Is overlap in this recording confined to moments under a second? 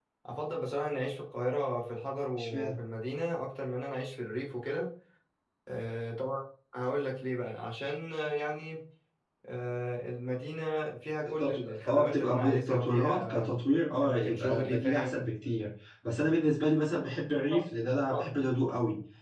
No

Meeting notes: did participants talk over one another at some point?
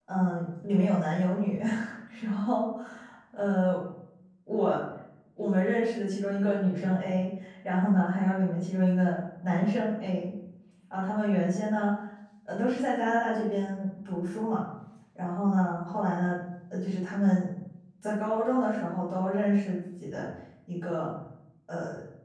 No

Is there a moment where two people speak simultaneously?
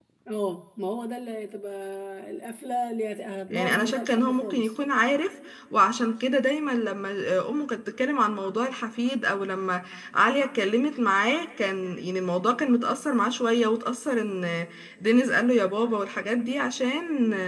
Yes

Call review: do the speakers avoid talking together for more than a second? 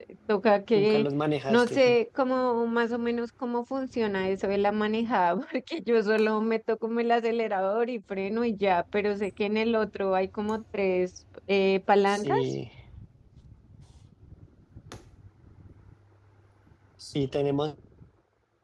Yes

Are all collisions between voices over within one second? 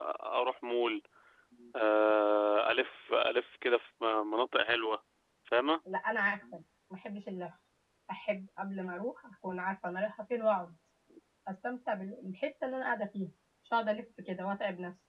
Yes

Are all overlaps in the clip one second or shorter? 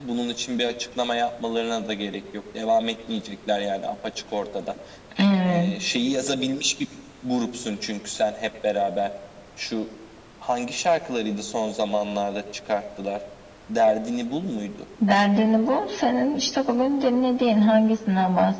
Yes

